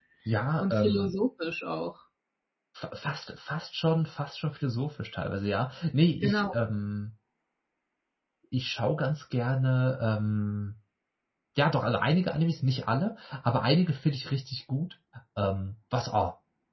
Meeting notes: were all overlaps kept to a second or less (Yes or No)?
Yes